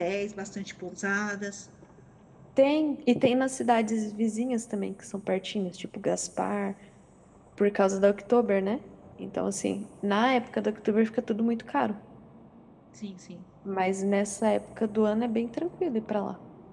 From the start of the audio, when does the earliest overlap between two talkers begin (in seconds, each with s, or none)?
none